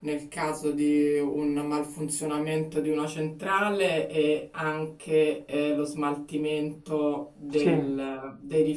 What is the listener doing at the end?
listening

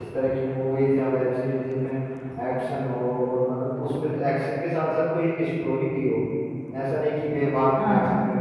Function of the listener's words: listening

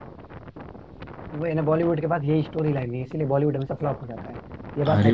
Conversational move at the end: taking over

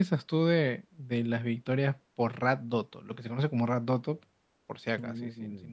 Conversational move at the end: taking over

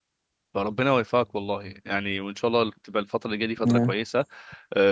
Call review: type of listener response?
listening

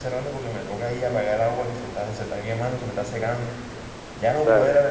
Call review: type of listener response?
listening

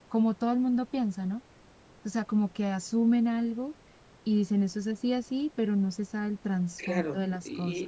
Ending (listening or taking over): taking over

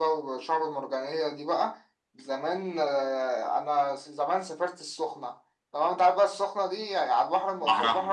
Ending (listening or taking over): listening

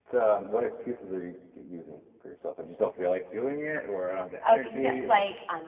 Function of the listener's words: taking over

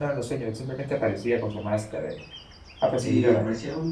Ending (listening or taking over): taking over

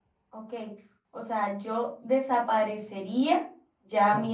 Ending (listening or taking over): listening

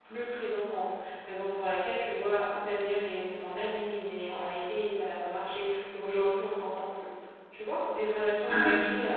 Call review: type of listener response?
listening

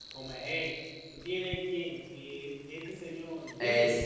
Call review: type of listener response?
taking over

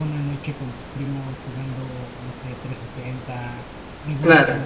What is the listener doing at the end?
listening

